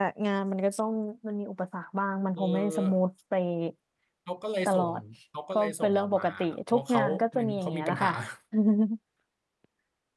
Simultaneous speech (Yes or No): Yes